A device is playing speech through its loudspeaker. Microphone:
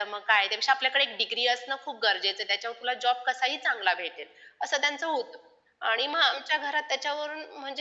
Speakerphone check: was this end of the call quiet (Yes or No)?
Yes